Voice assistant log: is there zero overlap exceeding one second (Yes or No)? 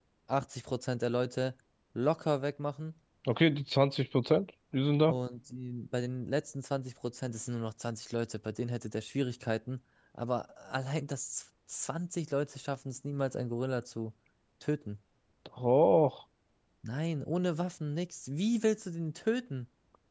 Yes